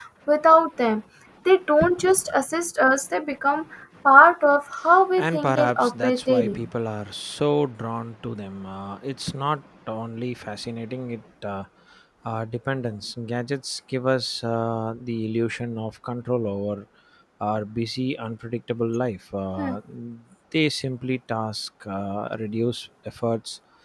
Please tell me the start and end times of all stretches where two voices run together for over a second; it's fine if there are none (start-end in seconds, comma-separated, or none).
5.2-6.6